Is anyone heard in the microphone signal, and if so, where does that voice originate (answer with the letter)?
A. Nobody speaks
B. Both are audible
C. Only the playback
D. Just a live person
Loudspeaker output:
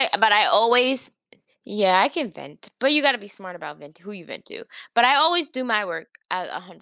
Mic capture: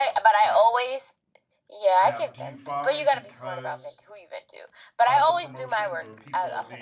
B